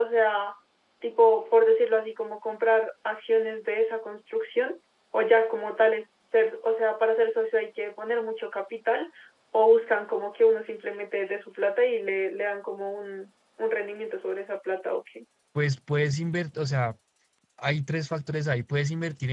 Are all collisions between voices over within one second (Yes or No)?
Yes